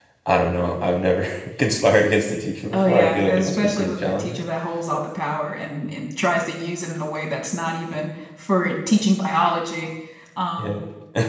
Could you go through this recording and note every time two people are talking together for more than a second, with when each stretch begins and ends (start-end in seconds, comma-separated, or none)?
2.7-4.4